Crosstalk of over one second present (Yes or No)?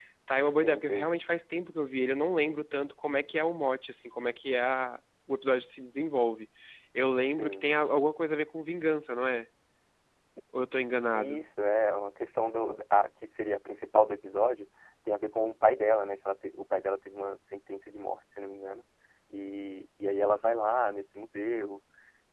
No